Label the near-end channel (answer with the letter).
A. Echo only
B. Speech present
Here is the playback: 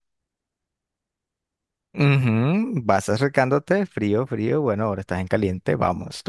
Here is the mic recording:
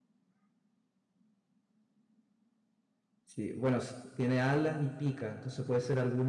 B